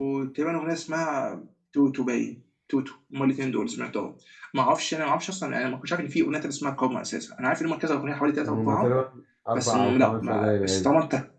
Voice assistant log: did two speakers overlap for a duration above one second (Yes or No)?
Yes